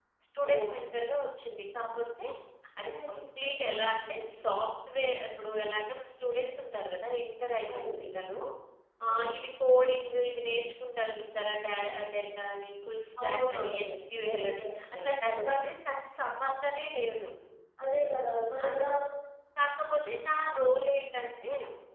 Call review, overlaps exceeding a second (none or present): present